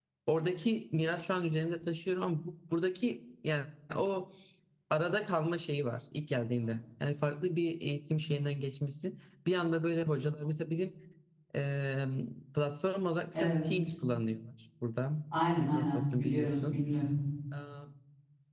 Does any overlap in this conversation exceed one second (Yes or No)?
Yes